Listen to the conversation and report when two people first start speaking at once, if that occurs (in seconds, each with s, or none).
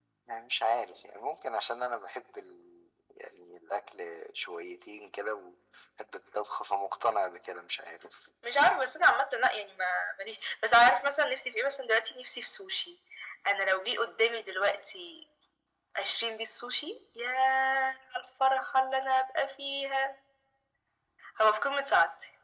none